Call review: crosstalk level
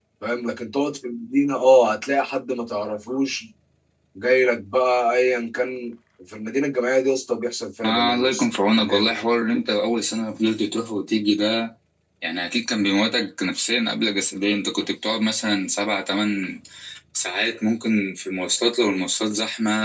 present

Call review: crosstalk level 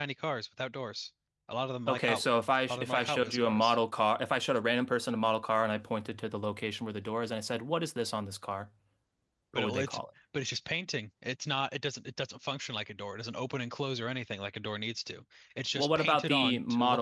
present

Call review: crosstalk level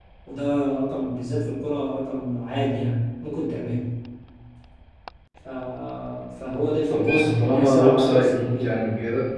present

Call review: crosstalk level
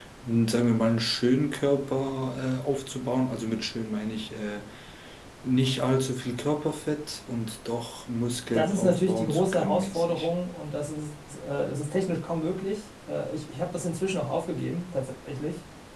present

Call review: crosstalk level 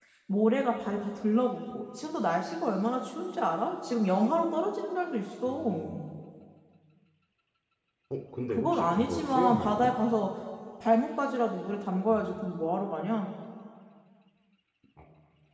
present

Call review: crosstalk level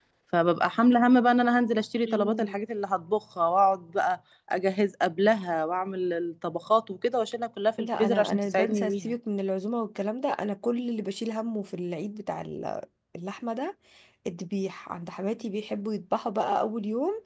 present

